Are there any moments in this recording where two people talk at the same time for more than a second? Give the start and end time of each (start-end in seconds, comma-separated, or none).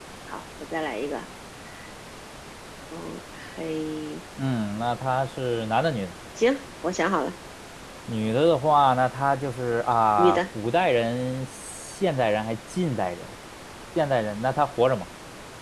none